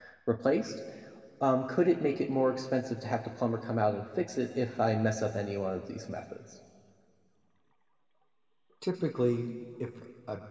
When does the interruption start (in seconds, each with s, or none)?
none